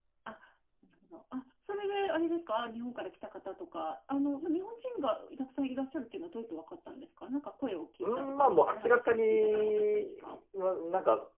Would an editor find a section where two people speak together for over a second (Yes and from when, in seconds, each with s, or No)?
Yes, from 8.0 s